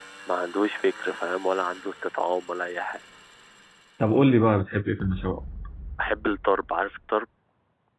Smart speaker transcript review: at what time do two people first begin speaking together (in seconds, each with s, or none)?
none